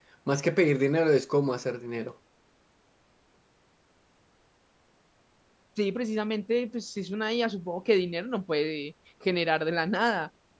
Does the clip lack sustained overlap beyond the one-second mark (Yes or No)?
Yes